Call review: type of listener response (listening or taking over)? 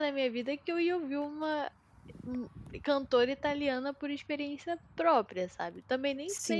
taking over